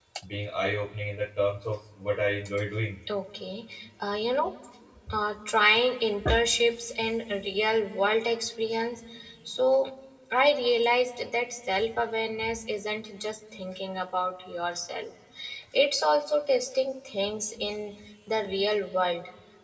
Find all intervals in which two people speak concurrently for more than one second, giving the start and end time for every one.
none

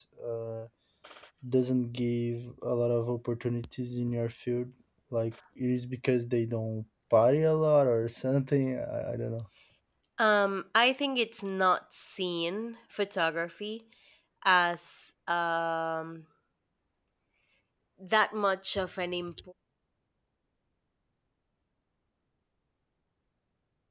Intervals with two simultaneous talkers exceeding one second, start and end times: none

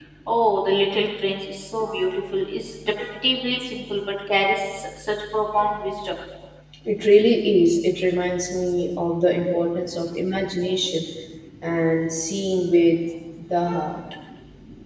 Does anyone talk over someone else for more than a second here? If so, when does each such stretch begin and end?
none

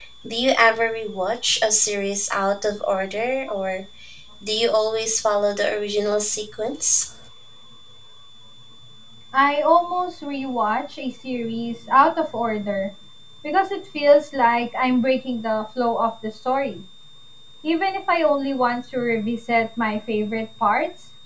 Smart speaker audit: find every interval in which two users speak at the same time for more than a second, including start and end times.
none

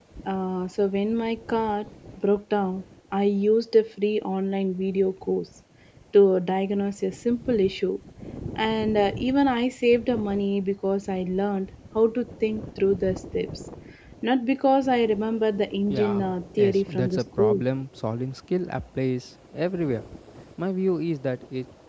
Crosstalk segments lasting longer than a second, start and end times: 15.9-17.6

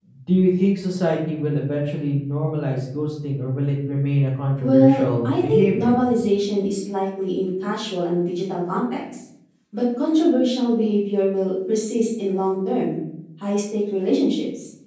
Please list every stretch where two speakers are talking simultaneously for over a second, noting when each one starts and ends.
4.6-5.9

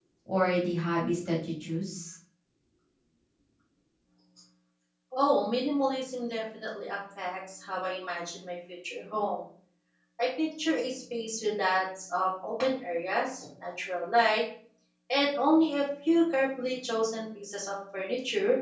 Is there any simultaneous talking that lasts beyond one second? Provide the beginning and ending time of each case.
none

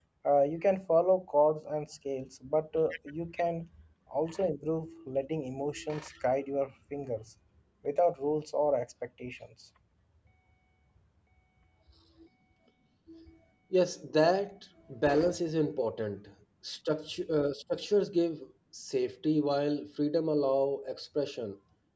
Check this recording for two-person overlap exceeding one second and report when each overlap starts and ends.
none

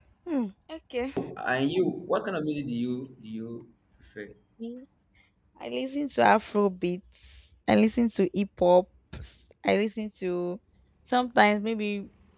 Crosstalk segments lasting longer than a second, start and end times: none

